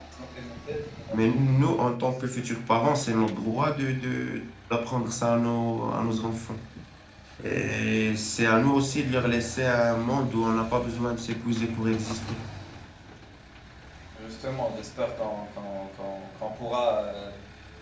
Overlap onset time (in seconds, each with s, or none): none